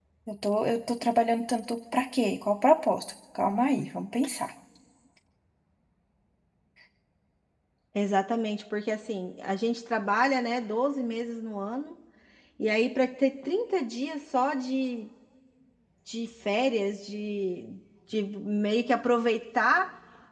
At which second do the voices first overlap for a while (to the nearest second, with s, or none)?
none